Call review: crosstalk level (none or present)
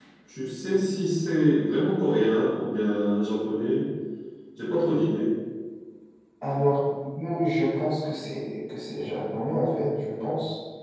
none